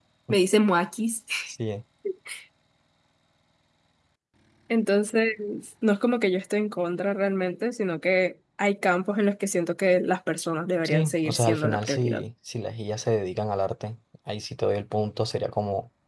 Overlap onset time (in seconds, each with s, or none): 10.8 s